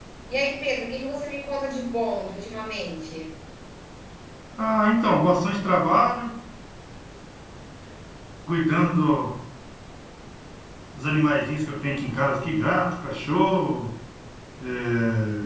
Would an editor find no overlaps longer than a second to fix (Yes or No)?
Yes